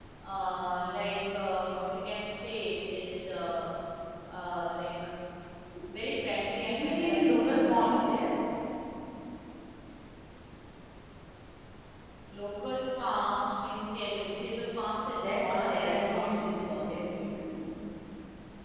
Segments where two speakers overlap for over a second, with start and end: 6.6-8.0, 15.1-16.9

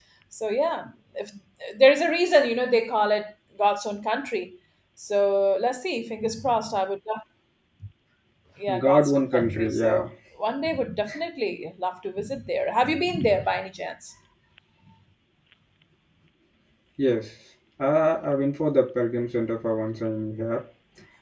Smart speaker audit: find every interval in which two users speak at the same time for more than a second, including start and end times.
8.8-10.1

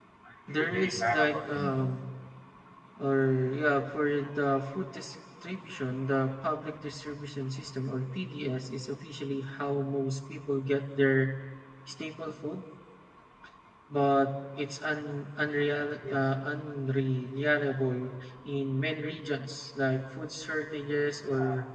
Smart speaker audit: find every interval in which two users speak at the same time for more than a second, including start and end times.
0.5-1.8

